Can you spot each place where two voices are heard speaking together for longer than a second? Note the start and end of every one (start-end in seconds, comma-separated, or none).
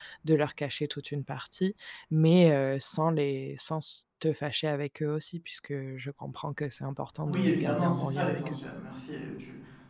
7.2-8.6